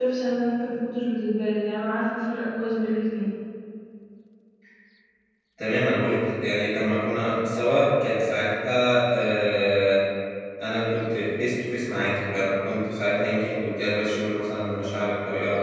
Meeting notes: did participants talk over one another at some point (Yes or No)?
No